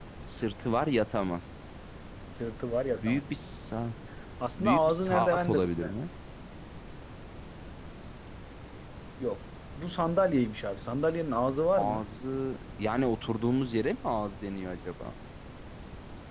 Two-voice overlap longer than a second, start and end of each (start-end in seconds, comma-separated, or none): 4.6-5.9